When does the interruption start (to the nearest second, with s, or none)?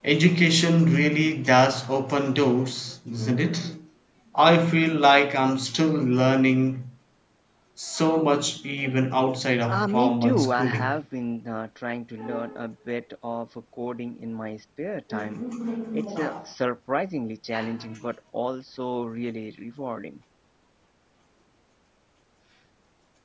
10 s